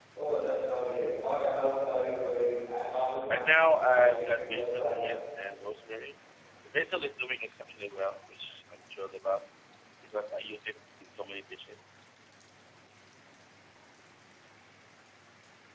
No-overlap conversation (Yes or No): No